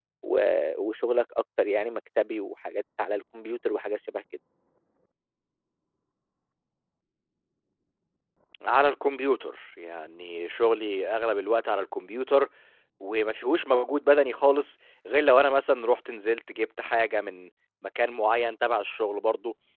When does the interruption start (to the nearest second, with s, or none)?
none